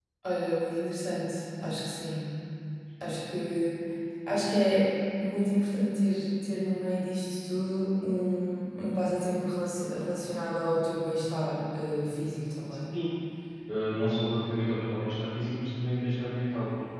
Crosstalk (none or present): none